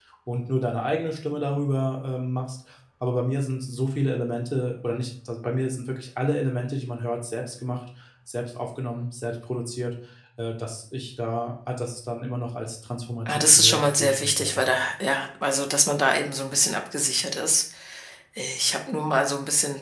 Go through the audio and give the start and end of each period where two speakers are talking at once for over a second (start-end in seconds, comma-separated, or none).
13.3-14.6